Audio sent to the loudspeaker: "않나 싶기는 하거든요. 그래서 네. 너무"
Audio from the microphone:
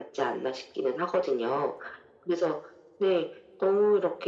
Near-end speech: none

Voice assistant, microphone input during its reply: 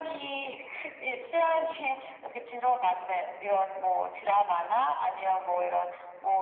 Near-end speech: none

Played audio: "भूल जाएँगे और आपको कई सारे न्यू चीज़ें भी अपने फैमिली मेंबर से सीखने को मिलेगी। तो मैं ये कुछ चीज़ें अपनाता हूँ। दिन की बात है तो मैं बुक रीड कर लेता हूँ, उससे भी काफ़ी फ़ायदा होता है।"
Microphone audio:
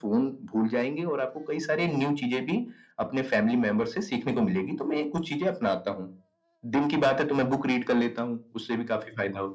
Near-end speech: none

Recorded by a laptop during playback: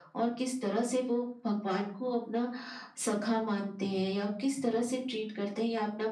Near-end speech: none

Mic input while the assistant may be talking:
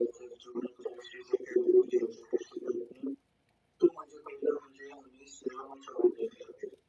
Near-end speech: none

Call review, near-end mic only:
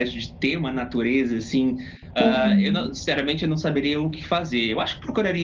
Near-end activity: present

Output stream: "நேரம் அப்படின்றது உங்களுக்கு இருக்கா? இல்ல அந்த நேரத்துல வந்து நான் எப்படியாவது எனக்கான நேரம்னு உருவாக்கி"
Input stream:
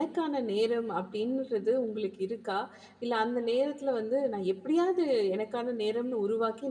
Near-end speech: none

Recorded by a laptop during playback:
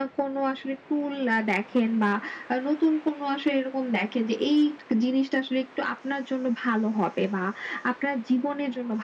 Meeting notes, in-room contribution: none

